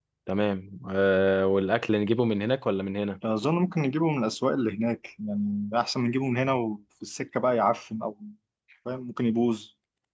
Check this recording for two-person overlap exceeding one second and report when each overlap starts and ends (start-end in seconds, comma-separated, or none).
none